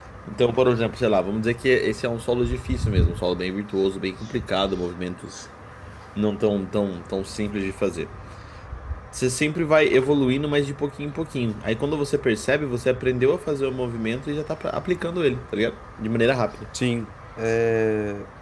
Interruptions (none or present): none